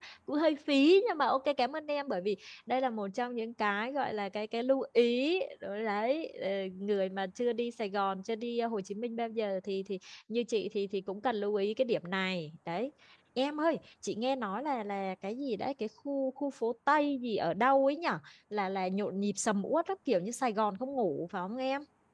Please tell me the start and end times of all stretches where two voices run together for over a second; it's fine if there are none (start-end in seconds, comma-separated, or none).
none